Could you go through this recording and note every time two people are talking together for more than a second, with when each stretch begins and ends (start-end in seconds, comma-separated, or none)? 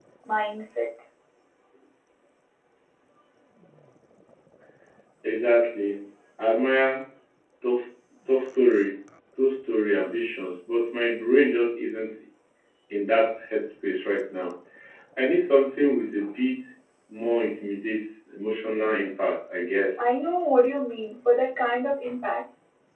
none